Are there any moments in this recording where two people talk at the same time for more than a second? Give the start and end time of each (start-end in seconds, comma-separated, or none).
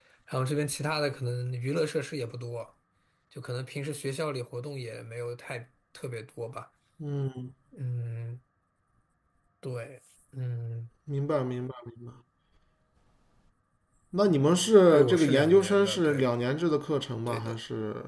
14.9-16.3